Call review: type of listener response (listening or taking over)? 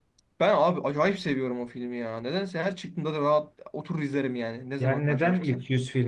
taking over